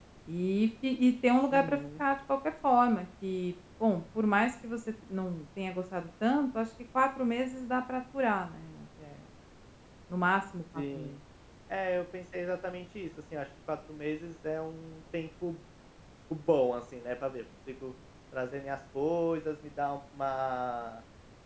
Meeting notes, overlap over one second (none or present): none